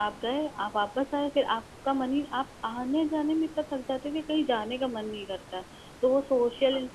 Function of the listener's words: listening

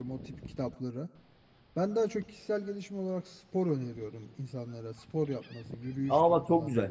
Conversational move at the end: taking over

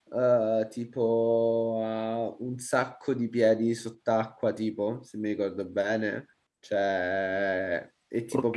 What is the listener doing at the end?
listening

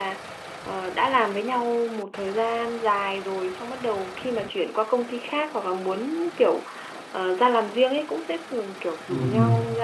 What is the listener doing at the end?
listening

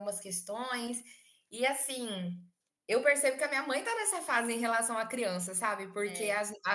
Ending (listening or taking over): listening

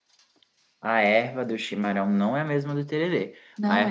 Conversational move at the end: listening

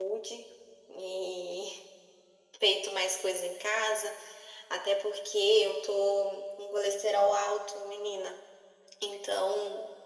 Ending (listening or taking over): listening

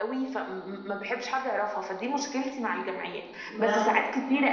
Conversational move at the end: listening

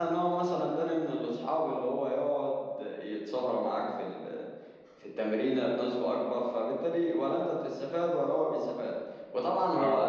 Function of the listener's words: listening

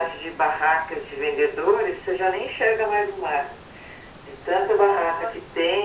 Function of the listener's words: listening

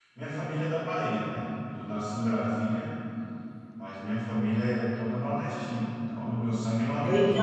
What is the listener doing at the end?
taking over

